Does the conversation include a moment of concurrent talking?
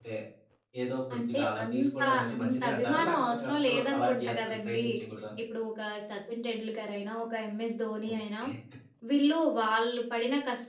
Yes, from 1.2 s

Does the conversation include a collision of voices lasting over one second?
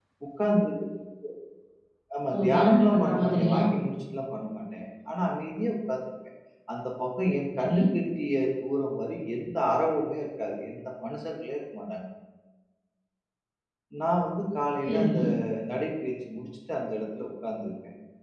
Yes, from 2.4 s

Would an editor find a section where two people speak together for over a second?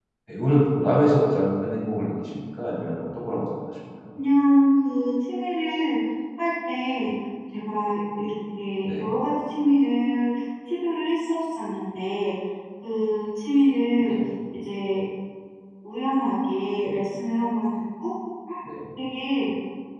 No

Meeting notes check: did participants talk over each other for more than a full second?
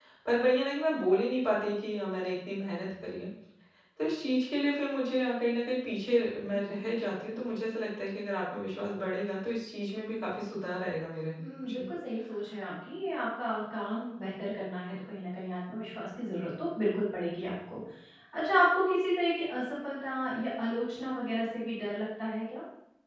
No

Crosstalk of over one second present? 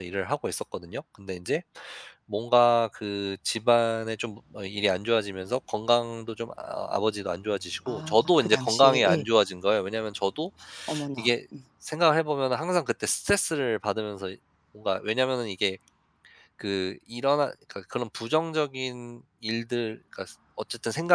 Yes, from 7.9 s

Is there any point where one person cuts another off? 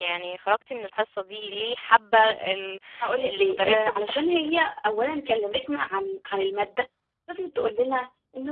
Yes, from 3.2 s

